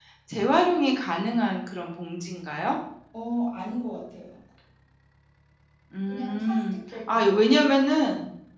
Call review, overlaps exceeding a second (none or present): present